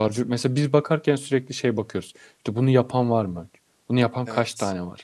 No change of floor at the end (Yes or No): Yes